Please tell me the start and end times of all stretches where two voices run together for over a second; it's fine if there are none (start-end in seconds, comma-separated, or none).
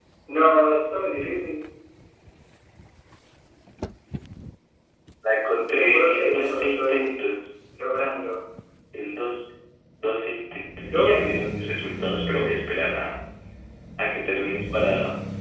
5.7-7.3